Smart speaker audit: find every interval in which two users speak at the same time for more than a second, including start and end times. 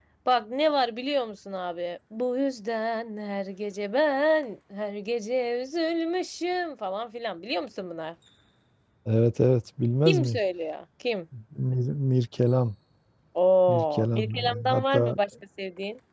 13.7-15.2

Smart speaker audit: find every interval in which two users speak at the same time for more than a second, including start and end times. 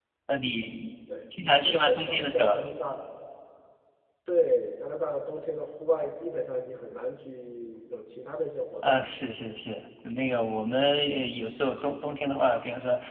1.3-2.6

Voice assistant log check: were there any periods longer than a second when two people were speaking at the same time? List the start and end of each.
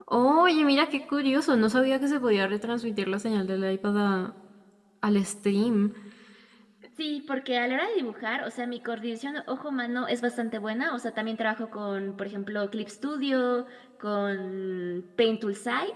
none

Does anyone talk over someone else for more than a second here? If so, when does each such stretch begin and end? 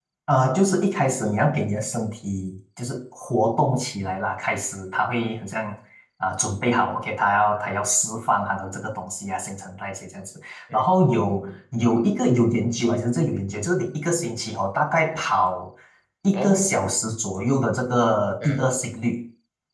none

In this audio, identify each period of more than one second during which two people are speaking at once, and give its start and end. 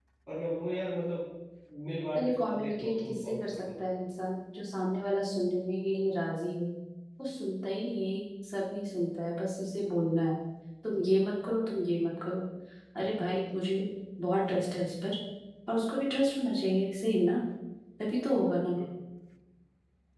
2.2-3.6

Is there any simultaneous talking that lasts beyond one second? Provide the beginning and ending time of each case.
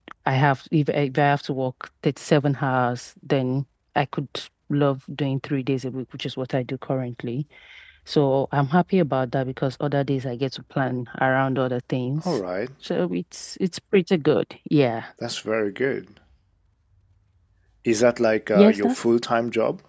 none

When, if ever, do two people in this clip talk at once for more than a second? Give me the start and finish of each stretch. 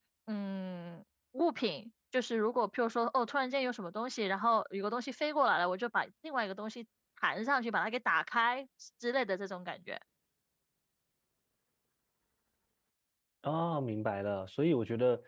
none

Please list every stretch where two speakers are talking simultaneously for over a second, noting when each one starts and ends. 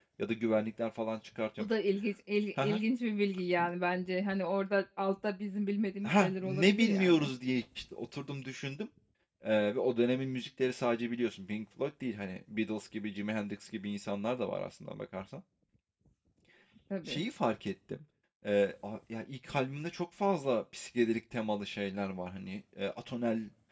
6.0-7.3

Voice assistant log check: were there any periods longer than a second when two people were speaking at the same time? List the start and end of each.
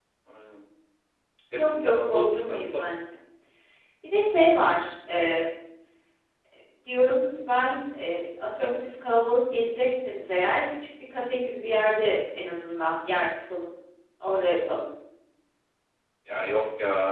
1.6-2.8

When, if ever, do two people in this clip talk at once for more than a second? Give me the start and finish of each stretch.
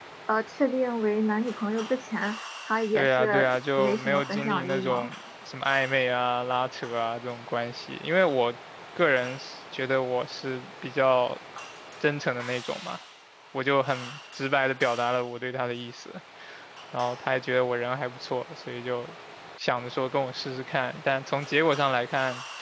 2.9-5.1

